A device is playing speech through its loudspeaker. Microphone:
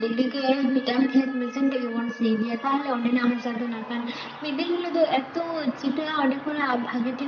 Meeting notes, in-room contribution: none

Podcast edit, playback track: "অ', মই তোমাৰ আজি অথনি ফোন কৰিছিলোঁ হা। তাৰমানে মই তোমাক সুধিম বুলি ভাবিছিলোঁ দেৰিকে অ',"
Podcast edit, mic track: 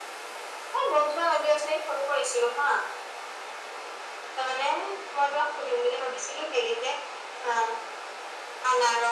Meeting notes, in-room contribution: none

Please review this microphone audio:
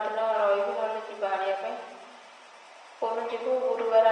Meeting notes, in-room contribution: none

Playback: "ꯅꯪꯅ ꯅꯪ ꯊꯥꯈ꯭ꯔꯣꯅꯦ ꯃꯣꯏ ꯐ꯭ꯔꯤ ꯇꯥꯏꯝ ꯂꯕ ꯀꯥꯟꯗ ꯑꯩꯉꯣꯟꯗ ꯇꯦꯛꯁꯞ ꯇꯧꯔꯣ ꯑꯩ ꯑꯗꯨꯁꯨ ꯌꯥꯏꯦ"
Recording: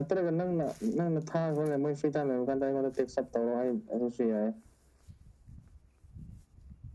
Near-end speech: none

